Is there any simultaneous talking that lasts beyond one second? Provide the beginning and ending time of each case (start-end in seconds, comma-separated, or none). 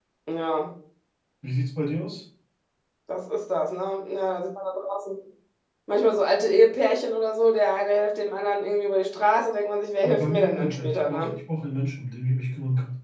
10.0-11.4